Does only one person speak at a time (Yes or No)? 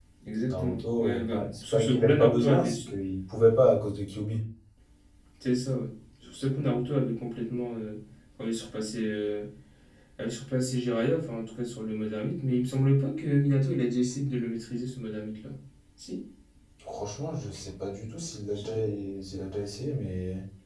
No